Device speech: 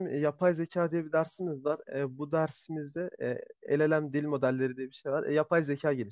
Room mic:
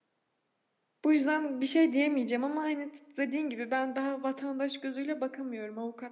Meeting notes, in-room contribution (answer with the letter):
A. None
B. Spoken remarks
B